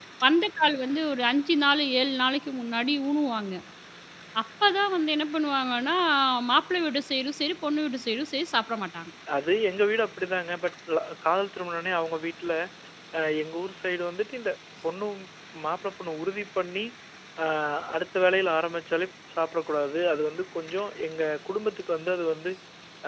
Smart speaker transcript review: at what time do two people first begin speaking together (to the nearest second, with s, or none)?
none